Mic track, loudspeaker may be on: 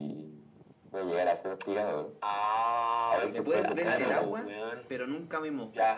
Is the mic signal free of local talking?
No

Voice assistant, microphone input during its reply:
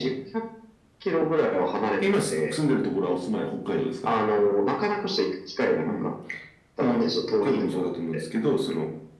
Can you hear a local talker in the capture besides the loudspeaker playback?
No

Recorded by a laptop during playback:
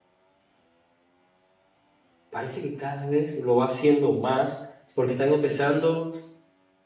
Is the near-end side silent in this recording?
No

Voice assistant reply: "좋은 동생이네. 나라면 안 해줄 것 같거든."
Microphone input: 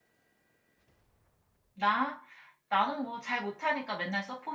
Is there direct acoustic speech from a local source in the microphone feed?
Yes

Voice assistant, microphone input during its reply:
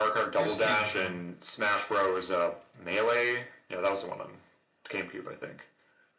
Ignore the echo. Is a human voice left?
Yes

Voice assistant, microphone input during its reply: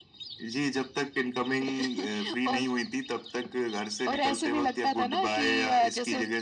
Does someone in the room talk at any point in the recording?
No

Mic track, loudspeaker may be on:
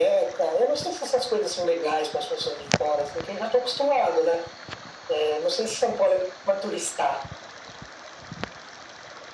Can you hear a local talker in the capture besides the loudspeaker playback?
No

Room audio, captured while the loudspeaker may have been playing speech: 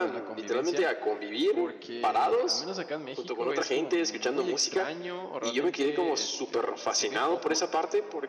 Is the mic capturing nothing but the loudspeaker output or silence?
No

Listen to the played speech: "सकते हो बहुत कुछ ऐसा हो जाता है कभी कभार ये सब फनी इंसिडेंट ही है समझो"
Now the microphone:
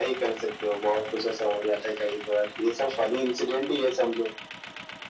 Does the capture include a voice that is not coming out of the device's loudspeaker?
No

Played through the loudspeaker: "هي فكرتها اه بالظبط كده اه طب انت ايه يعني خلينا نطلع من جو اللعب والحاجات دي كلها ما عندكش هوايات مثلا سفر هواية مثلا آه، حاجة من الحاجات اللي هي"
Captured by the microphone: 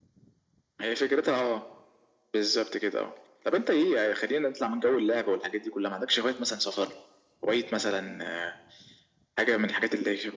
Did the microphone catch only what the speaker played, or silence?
Yes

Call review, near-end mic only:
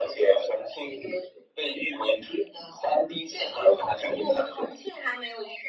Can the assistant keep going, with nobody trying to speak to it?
Yes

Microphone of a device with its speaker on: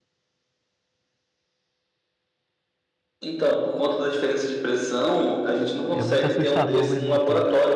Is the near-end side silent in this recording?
No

